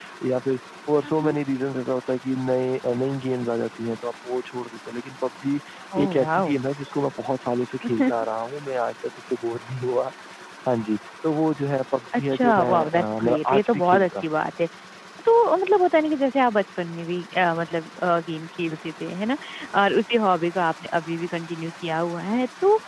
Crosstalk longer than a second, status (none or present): present